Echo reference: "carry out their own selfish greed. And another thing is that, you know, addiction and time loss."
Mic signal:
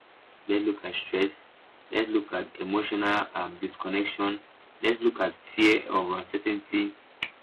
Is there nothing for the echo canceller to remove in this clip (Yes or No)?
Yes